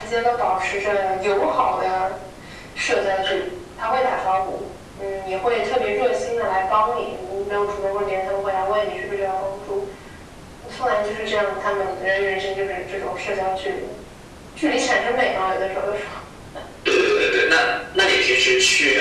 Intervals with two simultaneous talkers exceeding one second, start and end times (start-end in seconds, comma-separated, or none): none